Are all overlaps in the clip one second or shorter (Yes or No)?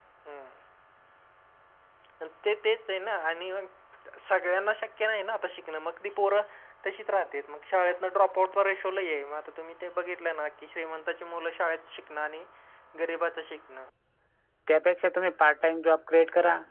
Yes